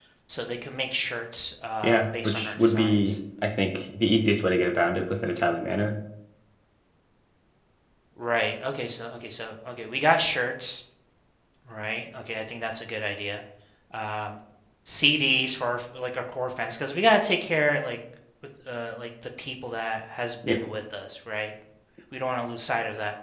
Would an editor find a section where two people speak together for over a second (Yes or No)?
Yes